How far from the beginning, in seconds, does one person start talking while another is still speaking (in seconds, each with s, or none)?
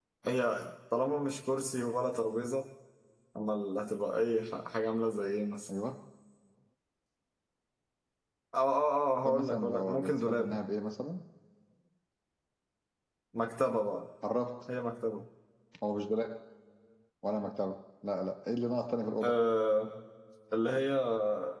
9.2 s